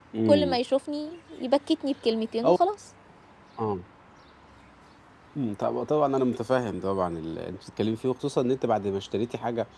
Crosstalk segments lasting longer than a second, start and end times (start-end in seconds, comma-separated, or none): none